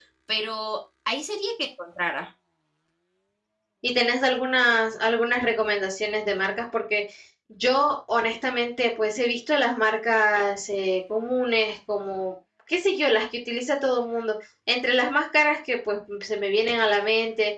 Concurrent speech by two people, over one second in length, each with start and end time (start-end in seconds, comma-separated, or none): none